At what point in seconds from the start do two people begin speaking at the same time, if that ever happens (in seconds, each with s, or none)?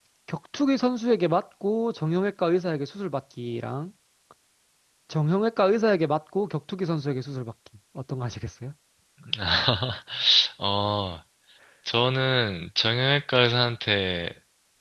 none